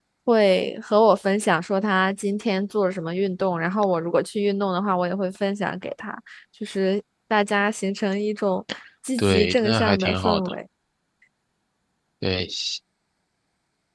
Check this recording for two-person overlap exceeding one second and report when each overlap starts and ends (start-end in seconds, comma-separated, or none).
9.2-10.5